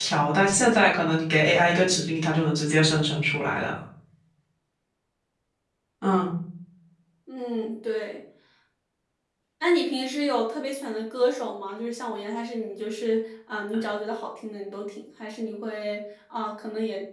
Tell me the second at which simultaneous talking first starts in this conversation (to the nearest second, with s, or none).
none